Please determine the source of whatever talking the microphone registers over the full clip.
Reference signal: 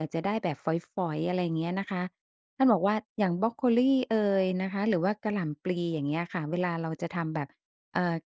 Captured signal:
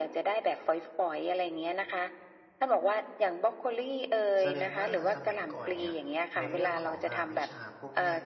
both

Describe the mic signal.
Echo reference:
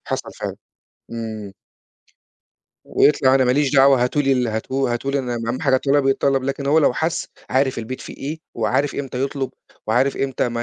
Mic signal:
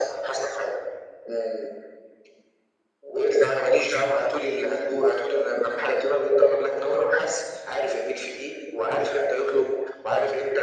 echo only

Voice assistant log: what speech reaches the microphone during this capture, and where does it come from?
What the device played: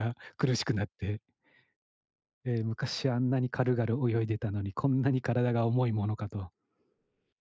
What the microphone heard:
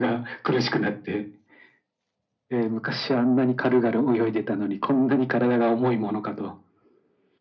echo only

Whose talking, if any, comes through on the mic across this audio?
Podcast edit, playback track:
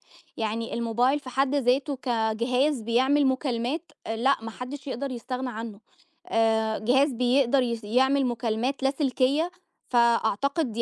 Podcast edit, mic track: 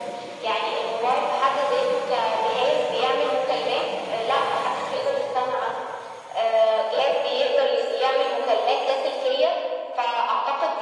echo only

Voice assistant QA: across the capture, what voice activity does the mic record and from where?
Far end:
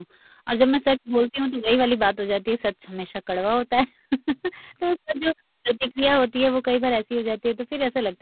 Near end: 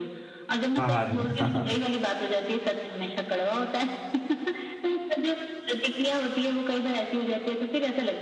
both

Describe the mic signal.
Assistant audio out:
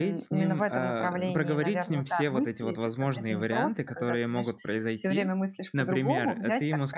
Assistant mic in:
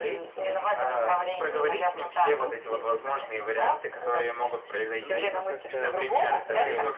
both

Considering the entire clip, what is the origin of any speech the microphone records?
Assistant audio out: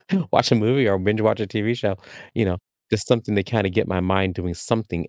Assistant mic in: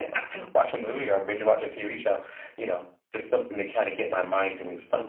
echo only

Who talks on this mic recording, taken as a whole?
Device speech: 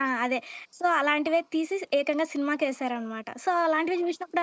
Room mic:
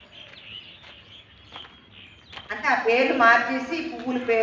user only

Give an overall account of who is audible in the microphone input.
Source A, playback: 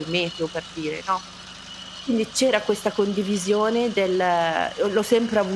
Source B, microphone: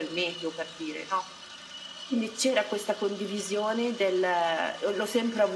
echo only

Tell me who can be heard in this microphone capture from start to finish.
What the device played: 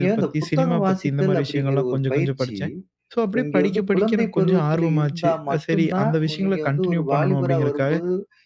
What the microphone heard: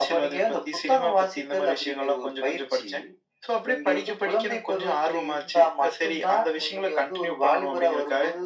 echo only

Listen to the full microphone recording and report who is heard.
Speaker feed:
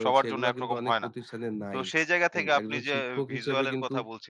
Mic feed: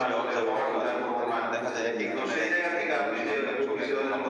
both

